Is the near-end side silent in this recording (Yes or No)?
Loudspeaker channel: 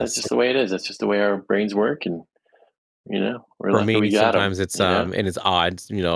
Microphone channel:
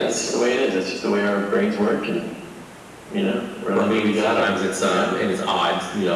Yes